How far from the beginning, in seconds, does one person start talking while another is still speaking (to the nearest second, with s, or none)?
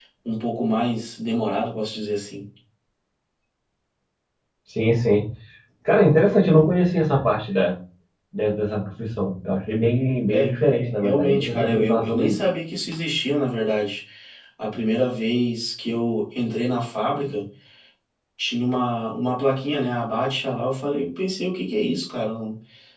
10 s